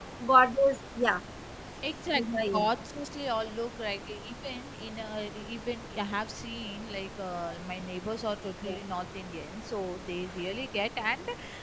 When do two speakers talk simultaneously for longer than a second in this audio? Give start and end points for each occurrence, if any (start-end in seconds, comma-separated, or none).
none